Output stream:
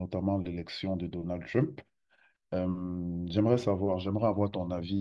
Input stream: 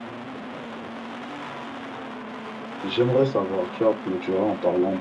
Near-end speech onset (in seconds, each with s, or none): 2.8 s